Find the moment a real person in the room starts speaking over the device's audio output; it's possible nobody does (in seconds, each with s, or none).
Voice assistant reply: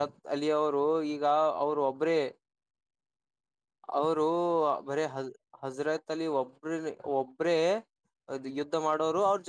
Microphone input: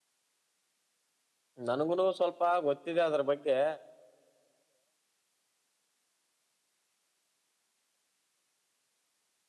1.7 s